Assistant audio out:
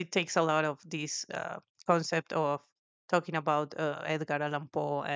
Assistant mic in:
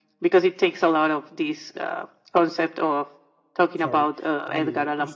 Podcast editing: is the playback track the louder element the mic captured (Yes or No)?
Yes